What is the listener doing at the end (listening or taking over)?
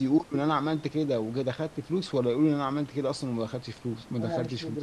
taking over